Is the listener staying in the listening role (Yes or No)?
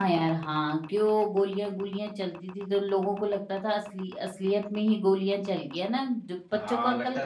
No